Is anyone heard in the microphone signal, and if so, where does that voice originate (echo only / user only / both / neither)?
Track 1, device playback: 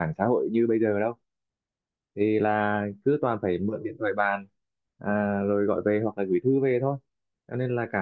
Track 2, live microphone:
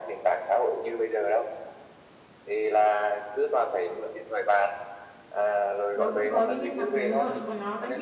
both